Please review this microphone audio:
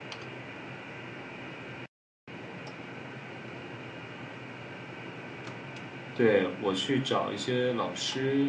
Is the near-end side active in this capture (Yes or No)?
Yes